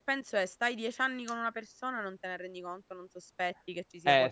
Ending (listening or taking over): taking over